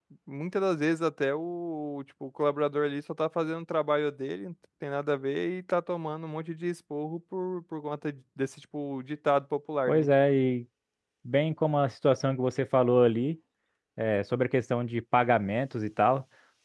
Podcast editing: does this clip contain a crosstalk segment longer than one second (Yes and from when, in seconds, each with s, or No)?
No